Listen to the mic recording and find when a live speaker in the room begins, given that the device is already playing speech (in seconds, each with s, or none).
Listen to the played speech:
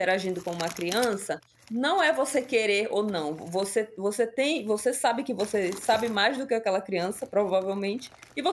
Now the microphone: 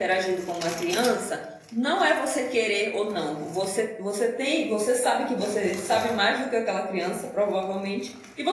none